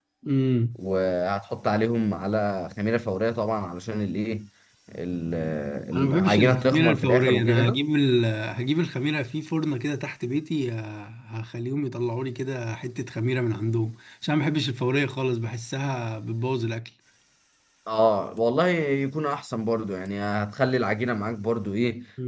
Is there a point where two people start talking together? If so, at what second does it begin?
5.9 s

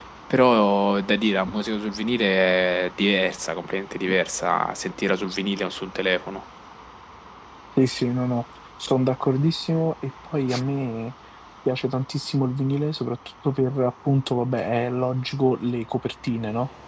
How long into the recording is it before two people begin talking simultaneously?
none

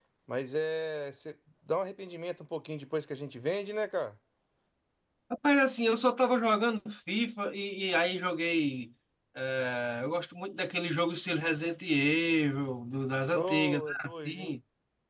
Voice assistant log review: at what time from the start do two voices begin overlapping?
13.3 s

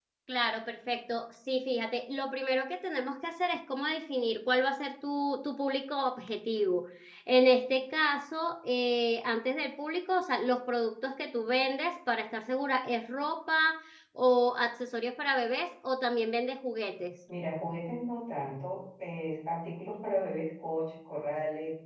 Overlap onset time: none

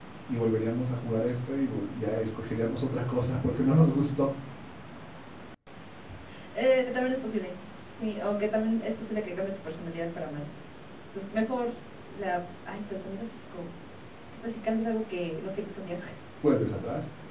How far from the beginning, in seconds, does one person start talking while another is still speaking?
none

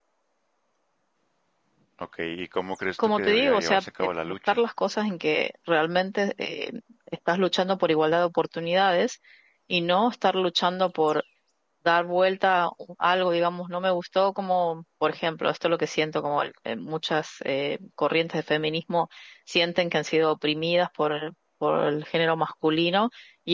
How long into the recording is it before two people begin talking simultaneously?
3.0 s

